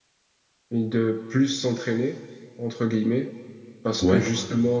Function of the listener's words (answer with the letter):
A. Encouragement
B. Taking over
A